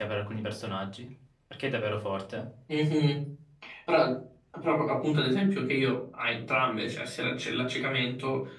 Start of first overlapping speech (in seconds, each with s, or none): none